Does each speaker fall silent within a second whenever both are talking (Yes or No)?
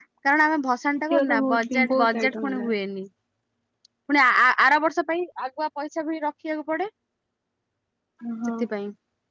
No